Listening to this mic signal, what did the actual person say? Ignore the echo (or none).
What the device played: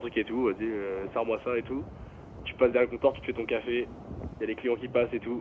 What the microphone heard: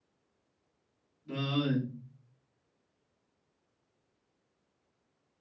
Bah ouais.